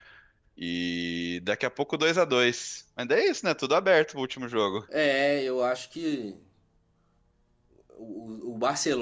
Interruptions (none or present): none